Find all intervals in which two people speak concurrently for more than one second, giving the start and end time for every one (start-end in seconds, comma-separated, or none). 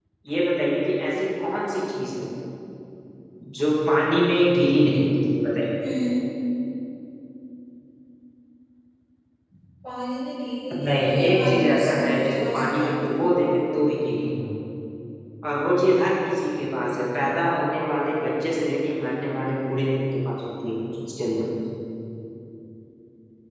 10.8-12.9